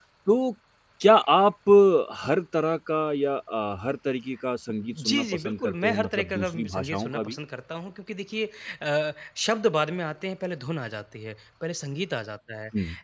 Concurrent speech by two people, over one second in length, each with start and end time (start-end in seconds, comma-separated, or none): 4.9-7.3